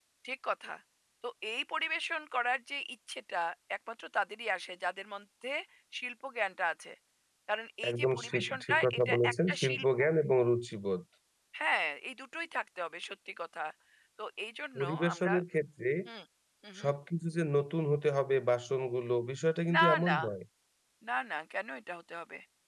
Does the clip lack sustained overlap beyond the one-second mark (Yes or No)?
No